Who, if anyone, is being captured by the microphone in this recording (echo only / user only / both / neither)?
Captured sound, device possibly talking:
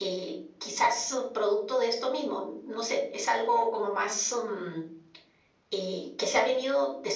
echo only